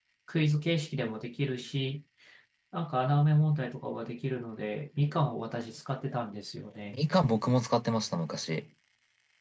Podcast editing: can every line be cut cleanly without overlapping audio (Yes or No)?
Yes